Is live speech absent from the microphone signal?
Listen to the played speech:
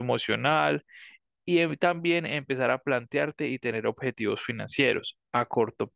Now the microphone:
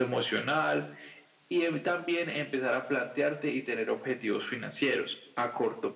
Yes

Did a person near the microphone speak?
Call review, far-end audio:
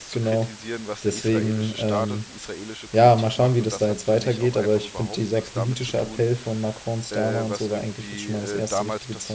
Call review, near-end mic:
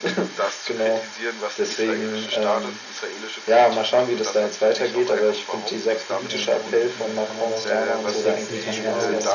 Yes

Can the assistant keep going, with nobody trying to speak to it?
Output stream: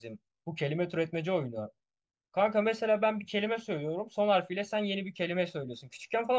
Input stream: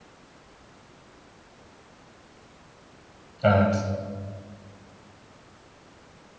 No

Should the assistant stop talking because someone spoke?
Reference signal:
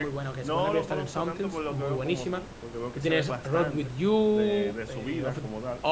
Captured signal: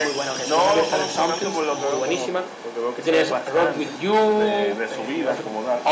No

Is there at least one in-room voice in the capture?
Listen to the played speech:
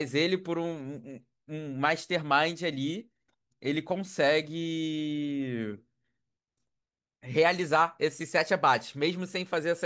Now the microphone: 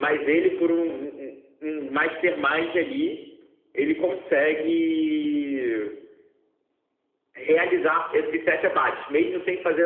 No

